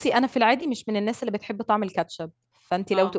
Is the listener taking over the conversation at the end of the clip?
No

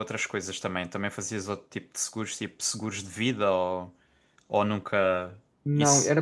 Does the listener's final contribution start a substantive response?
Yes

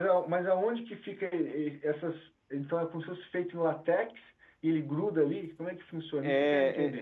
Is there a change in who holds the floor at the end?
Yes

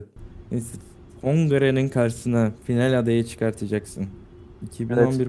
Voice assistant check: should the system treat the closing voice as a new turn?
No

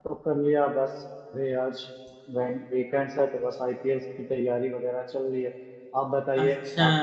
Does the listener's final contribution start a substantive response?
Yes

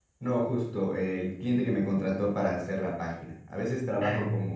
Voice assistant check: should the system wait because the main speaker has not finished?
Yes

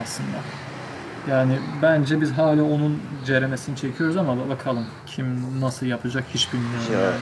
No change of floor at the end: No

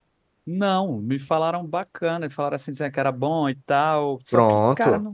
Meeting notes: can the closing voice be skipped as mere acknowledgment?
Yes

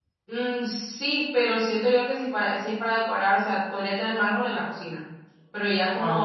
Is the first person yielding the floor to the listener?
No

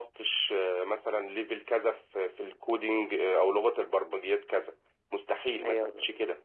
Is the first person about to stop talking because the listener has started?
No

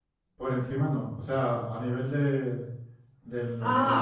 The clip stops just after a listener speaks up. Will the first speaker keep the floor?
No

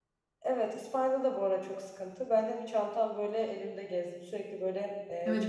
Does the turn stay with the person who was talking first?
No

